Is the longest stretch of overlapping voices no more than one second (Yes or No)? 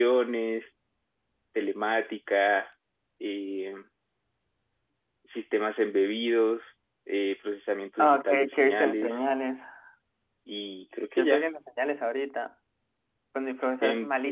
No